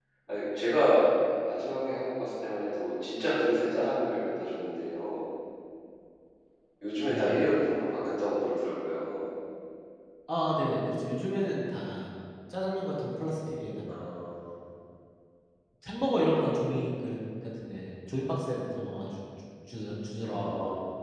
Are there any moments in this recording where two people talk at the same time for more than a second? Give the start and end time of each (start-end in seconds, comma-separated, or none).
none